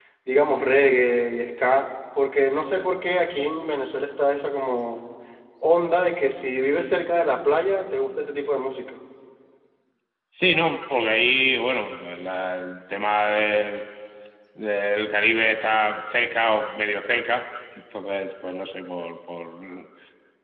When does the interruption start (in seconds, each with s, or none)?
none